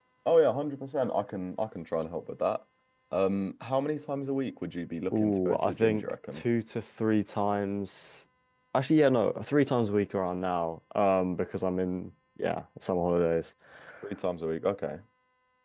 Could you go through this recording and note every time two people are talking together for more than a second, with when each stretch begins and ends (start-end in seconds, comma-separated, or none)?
5.1-6.4